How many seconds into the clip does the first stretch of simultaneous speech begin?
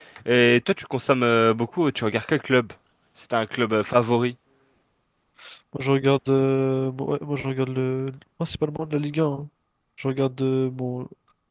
none

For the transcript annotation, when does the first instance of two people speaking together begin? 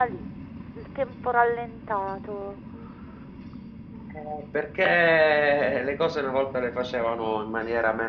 none

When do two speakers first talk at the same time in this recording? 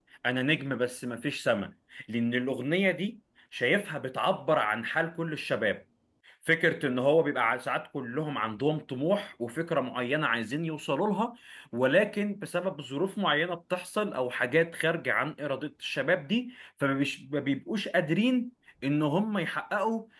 none

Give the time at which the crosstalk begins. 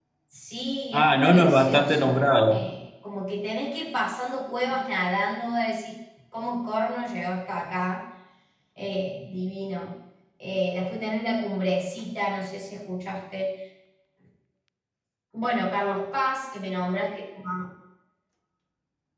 0.9 s

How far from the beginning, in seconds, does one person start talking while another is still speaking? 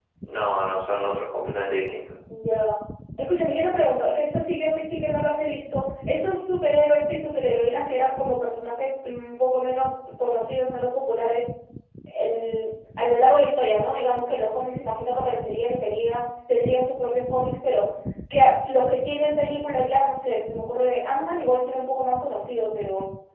none

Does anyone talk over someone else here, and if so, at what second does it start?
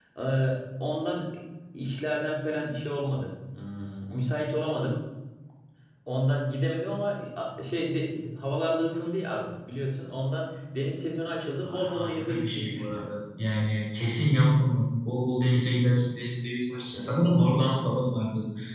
11.6 s

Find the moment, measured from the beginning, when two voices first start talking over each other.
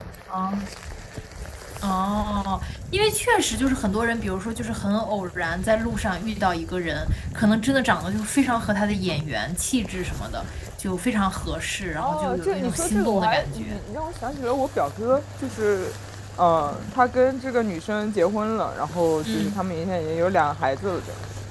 12.0 s

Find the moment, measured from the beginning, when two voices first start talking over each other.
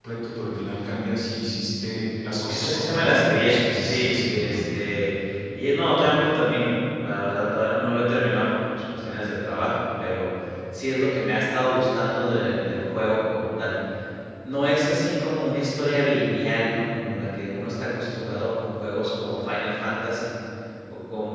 2.5 s

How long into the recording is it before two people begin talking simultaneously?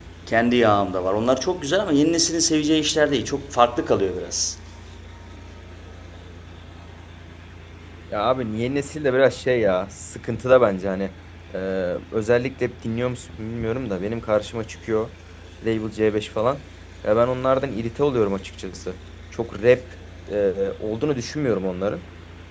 none

